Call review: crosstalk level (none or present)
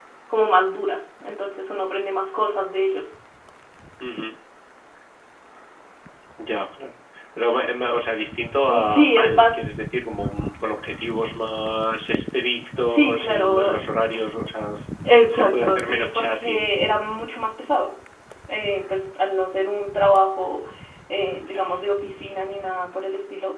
present